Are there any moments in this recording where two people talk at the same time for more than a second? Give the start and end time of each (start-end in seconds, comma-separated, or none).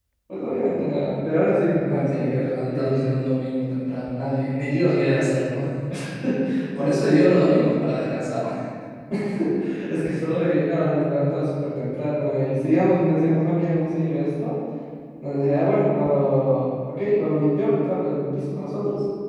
1.9-3.1